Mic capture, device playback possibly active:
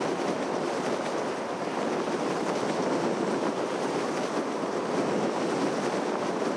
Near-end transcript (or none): none